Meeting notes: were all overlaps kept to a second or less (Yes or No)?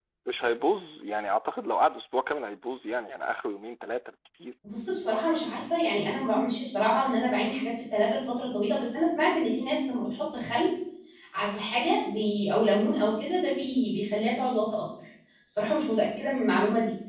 Yes